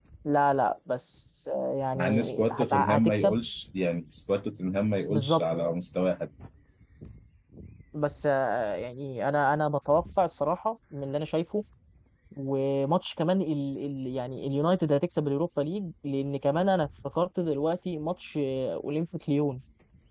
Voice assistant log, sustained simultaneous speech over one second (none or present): present